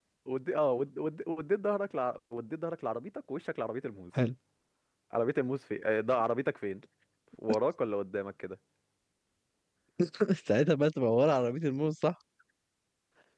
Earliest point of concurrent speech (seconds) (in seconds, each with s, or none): none